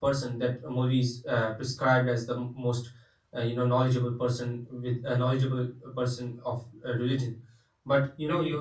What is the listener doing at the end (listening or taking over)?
listening